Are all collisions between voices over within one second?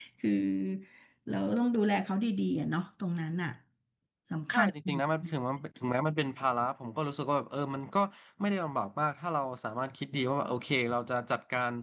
Yes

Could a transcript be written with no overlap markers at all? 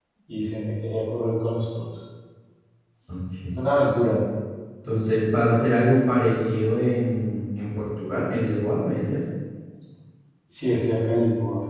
Yes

